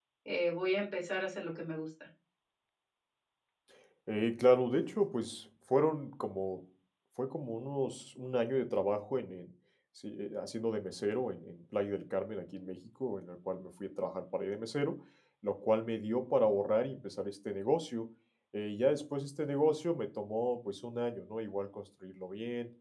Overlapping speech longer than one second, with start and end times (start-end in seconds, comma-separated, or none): none